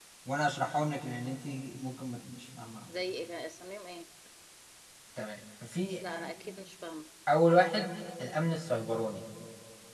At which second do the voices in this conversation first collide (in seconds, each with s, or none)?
none